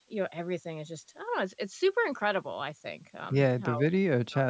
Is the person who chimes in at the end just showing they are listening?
No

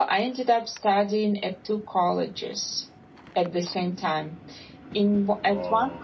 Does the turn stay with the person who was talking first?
Yes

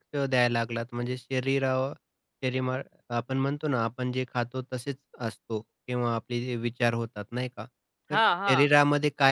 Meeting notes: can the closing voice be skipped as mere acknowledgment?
Yes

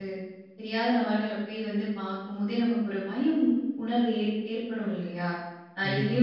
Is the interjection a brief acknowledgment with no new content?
Yes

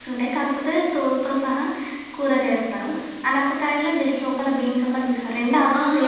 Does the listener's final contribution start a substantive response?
Yes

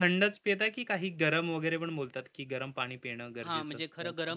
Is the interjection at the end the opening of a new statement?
Yes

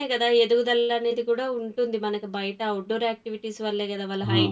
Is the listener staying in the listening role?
No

